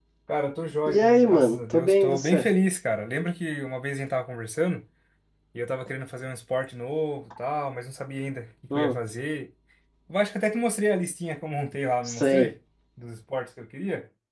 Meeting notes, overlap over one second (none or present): present